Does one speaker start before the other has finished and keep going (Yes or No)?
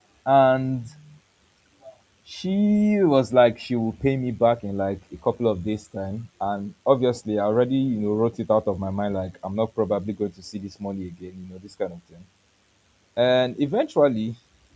No